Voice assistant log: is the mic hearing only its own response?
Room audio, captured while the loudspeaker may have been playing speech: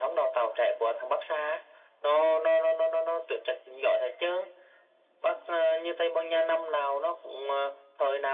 Yes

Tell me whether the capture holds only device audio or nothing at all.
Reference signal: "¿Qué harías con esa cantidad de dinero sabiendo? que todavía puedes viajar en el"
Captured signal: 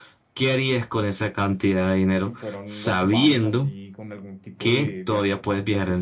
No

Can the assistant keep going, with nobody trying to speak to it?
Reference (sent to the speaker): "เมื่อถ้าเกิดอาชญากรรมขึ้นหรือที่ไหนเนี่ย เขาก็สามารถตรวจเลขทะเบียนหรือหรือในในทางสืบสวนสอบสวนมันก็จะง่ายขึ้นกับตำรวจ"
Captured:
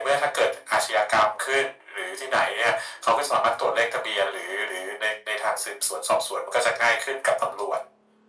Yes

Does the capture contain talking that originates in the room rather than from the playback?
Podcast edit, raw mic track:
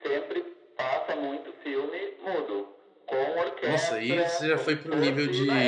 Yes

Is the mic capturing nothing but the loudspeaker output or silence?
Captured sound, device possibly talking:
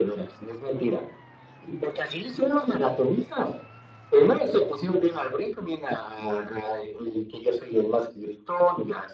Yes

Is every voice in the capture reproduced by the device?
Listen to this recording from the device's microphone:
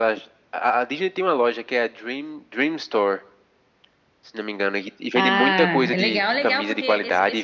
No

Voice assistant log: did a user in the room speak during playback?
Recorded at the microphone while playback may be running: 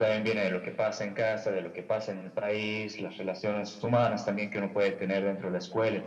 No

